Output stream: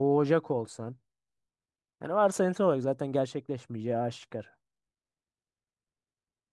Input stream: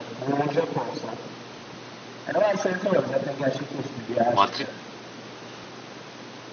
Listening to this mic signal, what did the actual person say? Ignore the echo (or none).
Madrid